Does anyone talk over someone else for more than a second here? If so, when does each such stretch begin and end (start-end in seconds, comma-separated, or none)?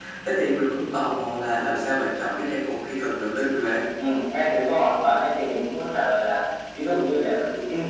none